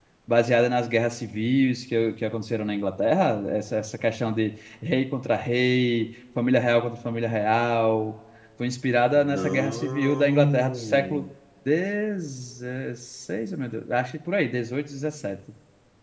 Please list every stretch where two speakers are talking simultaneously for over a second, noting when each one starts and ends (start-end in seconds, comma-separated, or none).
9.2-11.3